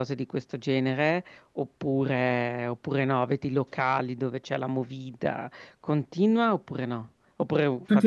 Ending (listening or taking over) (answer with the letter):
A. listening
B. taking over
B